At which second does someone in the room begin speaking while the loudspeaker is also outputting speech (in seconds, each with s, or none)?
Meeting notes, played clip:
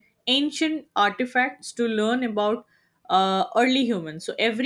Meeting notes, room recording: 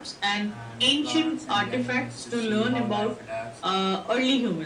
0.4 s